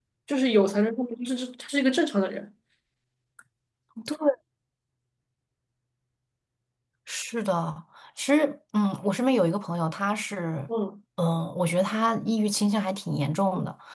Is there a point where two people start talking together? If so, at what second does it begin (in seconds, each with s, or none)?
none